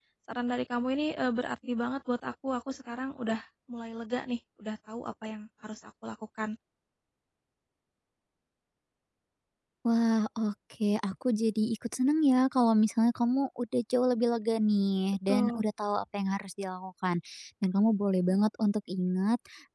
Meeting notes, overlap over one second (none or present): none